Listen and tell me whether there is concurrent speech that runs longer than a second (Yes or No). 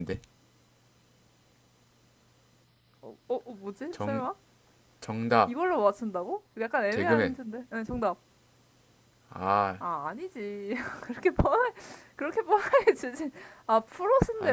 No